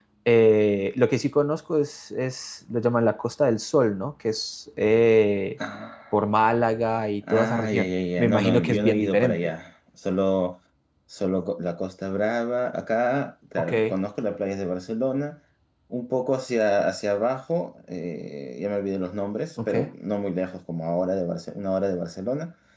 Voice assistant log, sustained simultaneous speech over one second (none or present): present